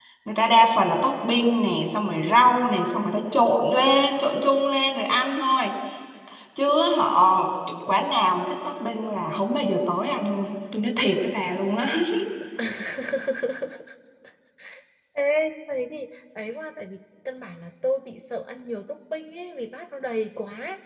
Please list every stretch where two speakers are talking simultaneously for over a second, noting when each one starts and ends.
none

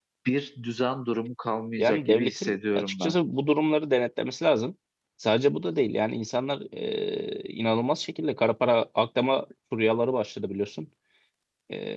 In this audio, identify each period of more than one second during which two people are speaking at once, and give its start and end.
1.8-3.1

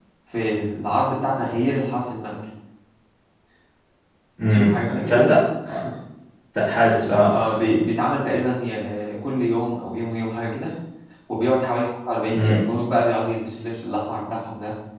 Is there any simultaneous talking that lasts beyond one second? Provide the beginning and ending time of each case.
none

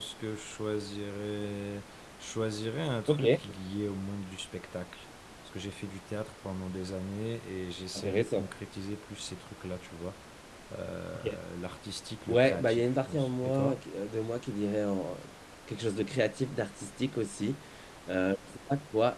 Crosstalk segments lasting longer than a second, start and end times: 12.3-13.8

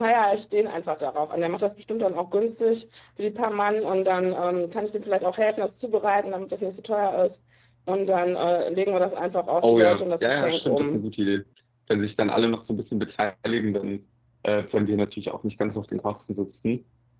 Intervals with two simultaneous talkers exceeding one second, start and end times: 9.6-11.0

